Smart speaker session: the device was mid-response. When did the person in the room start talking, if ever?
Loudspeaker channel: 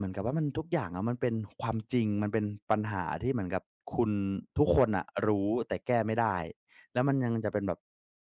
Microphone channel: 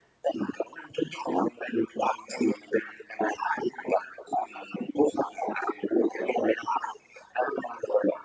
none

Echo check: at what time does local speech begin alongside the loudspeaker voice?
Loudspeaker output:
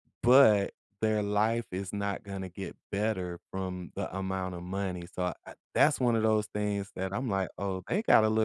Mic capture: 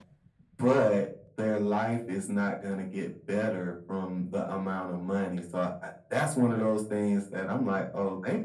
none

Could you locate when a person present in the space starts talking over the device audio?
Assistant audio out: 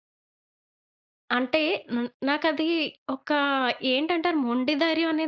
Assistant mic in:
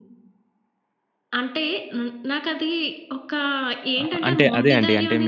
4.0 s

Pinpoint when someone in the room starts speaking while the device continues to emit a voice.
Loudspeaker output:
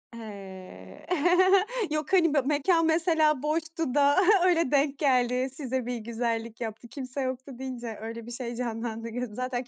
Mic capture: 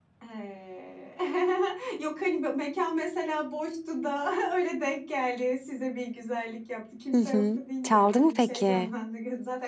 7.1 s

